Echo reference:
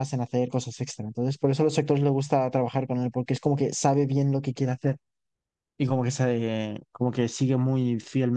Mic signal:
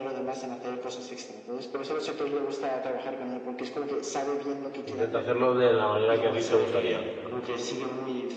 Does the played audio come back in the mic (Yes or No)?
Yes